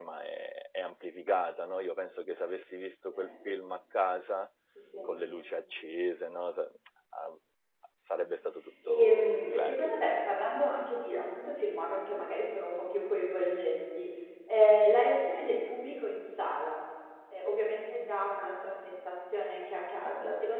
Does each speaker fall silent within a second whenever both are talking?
No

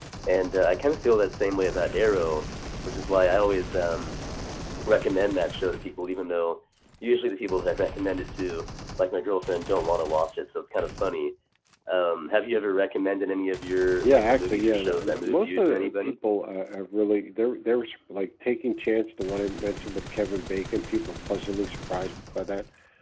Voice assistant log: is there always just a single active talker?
No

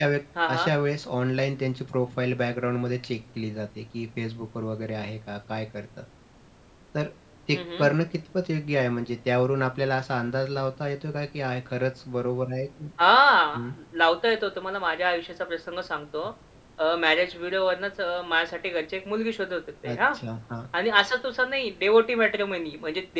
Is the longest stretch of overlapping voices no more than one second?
Yes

